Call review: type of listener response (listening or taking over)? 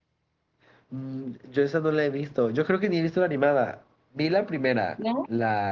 listening